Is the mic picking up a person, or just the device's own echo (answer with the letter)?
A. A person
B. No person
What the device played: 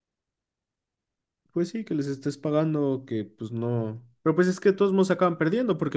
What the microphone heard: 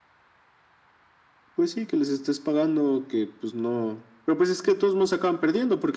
B